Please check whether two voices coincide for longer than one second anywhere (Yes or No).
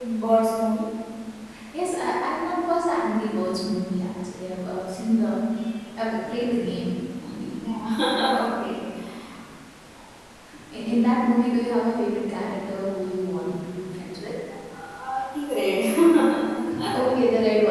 No